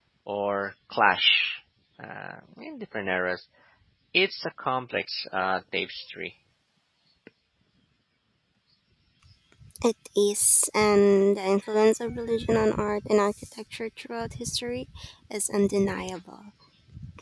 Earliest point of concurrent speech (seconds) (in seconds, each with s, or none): none